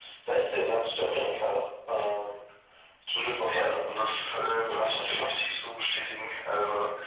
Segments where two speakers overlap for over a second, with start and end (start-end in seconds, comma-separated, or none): 3.4-5.3